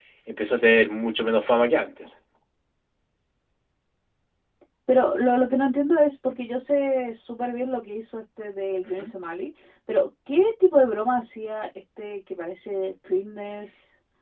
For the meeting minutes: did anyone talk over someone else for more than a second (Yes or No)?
No